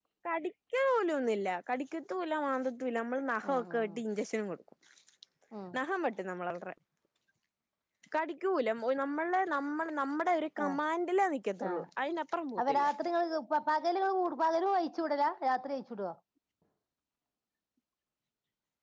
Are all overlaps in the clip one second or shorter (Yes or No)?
Yes